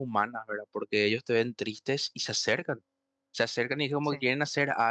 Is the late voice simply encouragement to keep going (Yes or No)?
Yes